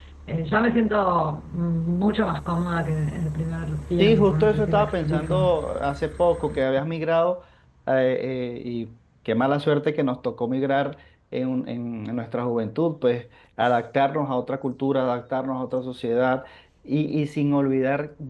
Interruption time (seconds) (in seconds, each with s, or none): 4.0 s